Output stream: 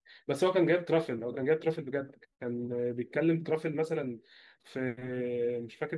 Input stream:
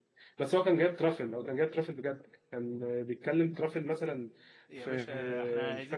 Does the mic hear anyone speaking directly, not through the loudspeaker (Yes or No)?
Yes